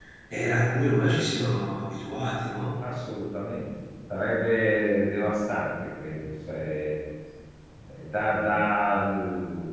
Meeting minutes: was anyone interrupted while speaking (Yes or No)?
No